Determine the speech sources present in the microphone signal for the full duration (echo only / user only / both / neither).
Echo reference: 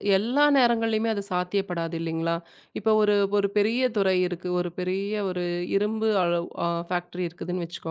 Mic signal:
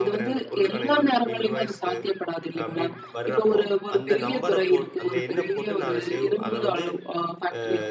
both